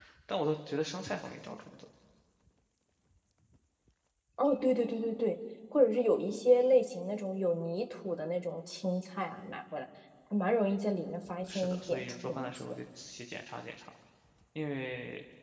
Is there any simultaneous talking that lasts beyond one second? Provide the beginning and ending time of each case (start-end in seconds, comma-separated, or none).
11.5-12.8